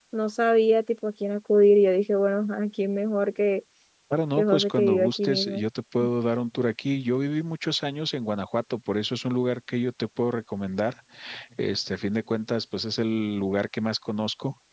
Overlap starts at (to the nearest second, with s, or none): 4 s